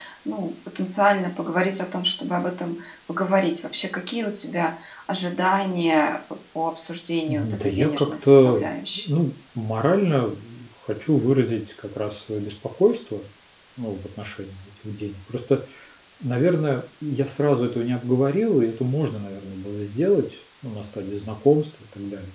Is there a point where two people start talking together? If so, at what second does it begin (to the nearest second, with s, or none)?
7 s